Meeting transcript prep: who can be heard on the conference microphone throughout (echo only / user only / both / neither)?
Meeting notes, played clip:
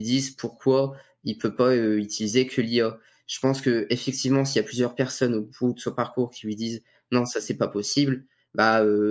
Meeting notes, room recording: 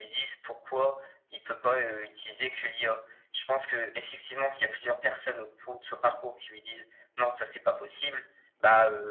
echo only